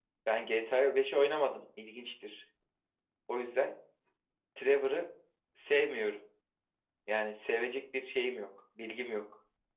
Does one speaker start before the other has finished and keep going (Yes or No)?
No